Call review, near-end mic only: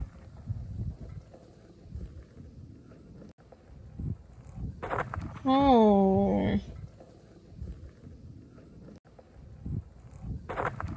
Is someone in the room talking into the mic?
Yes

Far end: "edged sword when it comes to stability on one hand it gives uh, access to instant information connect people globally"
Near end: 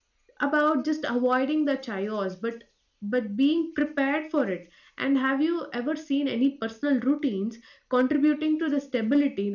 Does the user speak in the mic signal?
Yes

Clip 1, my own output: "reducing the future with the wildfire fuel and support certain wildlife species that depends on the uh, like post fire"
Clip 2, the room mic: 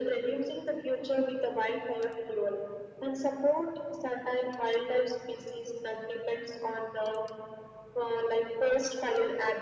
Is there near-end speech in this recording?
No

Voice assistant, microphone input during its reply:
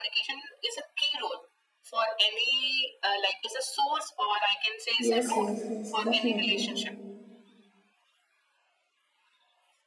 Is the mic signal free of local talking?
No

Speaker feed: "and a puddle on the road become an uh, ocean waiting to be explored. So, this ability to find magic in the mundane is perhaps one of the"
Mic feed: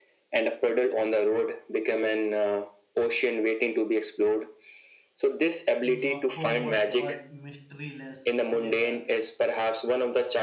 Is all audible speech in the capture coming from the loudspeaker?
No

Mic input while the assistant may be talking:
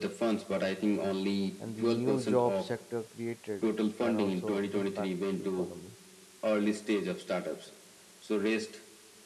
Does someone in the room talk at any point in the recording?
Yes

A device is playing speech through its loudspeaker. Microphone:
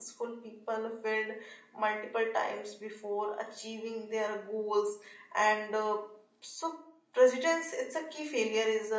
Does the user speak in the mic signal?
Yes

